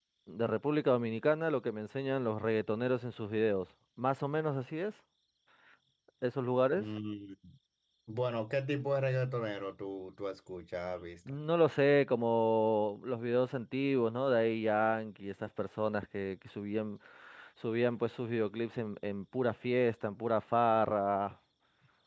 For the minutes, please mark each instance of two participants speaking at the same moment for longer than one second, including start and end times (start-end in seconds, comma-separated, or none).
none